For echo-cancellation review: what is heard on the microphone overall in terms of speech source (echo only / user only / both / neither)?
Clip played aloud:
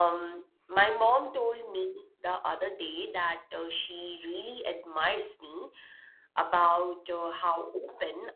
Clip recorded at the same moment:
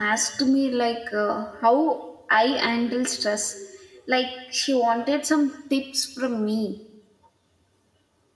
user only